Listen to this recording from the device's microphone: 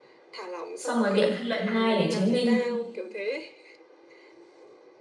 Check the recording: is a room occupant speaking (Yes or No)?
Yes